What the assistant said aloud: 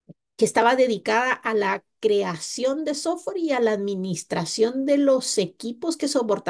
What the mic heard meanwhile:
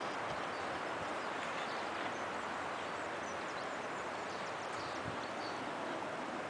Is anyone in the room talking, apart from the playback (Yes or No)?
No